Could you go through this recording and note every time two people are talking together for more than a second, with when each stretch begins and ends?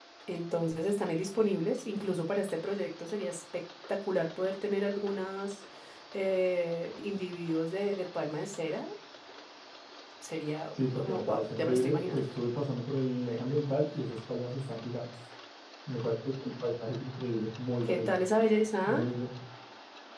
10.8-12.2

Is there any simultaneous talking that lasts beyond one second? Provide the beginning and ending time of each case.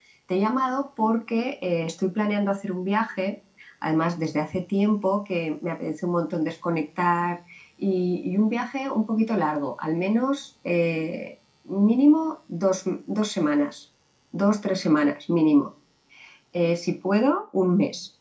none

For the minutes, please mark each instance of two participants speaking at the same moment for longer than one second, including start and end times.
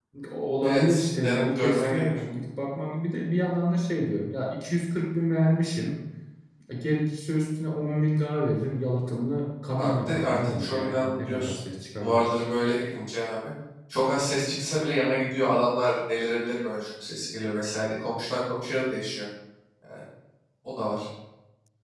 0.6-2.1, 9.8-11.6

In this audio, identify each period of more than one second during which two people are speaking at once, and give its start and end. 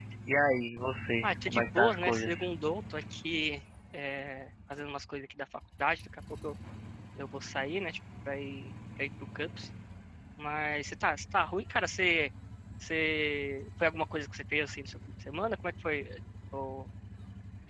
1.2-2.4

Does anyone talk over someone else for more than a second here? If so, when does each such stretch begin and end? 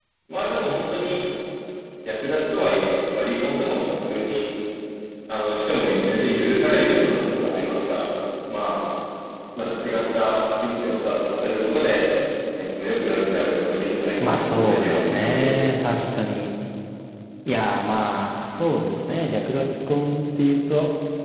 14.2-15.5

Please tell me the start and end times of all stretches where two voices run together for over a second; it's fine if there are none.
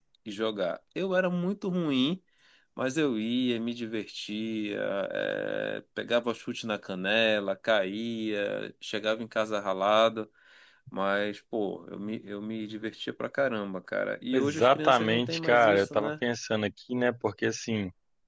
14.3-16.1

